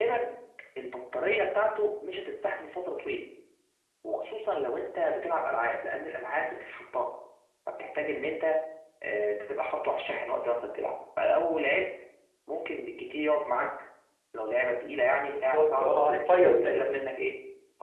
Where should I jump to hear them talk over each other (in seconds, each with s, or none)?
15.3 s